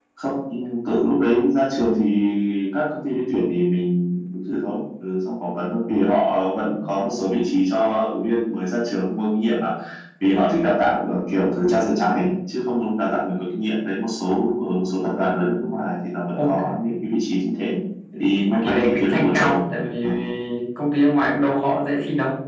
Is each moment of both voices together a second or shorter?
No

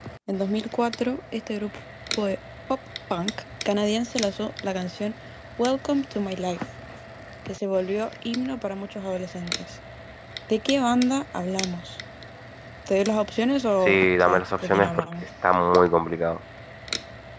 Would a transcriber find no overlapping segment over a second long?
No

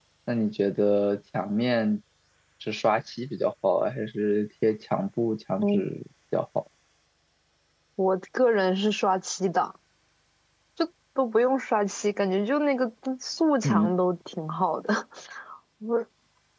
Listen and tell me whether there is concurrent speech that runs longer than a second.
No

